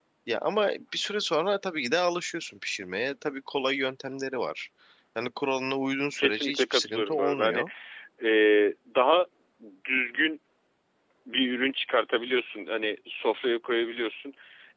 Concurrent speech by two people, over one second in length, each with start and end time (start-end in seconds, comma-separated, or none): 6.2-7.6